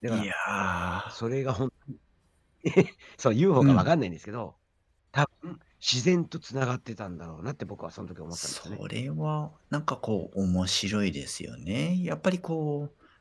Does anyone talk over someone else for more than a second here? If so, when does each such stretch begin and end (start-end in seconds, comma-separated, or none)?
none